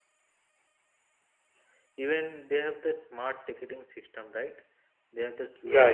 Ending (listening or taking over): listening